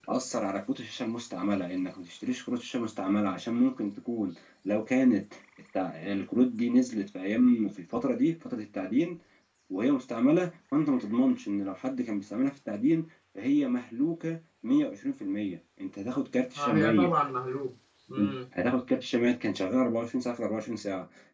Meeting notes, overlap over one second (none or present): none